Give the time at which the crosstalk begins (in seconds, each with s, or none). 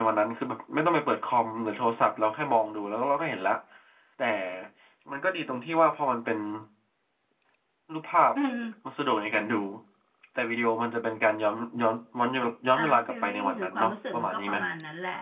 12.8 s